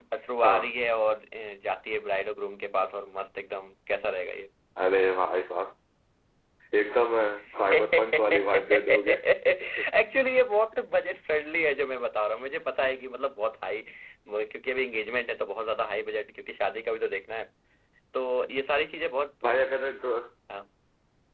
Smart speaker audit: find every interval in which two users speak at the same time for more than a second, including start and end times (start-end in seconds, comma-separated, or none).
7.7-9.2